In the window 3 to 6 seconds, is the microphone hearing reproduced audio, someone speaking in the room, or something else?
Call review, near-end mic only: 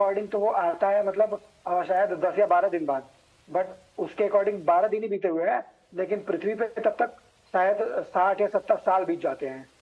echo only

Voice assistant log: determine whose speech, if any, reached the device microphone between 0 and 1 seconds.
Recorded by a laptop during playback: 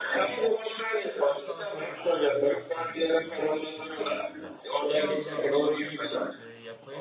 echo only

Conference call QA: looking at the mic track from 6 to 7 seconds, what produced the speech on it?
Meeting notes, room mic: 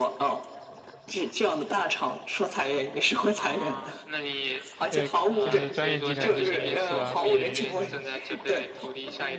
both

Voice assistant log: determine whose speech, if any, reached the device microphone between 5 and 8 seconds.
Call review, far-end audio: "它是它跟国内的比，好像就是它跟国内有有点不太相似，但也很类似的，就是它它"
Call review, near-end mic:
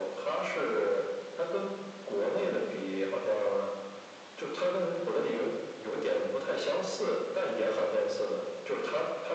echo only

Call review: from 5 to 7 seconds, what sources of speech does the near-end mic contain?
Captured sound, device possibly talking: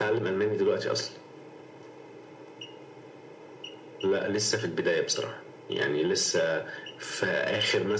echo only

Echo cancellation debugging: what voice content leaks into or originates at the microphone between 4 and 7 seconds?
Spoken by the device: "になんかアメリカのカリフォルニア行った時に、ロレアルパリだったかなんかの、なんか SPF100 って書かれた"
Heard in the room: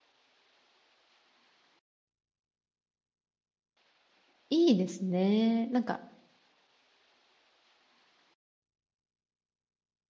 user only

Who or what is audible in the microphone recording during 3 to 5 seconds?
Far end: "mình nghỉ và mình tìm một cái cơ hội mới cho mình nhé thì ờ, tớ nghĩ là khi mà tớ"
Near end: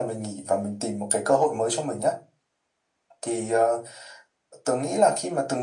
echo only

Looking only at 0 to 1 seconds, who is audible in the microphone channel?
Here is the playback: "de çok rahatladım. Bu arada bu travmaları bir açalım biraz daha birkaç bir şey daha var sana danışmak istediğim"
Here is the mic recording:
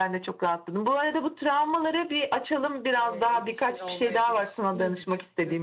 echo only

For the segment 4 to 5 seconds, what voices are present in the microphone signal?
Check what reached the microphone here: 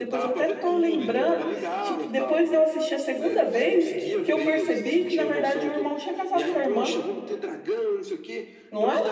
both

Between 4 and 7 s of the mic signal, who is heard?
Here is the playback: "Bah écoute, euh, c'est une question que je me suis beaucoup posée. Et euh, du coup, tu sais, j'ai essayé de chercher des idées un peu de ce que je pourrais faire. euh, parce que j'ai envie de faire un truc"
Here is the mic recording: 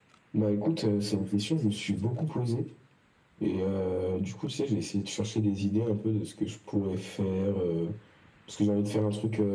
echo only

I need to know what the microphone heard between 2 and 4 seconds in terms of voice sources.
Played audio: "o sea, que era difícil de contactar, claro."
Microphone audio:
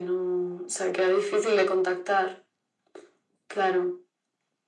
echo only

